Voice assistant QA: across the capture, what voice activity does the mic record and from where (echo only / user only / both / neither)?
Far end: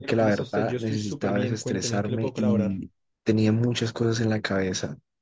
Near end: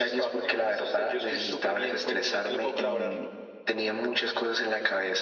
echo only